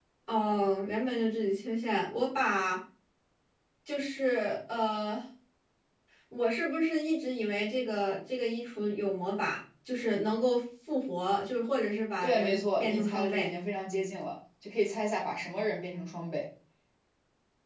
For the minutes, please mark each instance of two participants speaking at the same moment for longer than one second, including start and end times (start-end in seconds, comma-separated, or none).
12.2-13.5